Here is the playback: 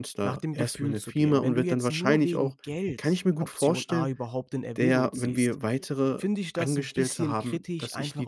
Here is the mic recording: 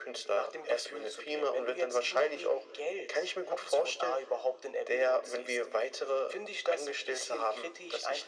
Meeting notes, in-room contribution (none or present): none